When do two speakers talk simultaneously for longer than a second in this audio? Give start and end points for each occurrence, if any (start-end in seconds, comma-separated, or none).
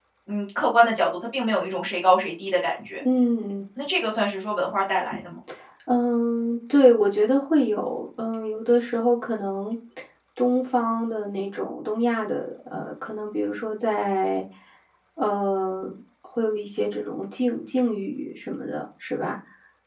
none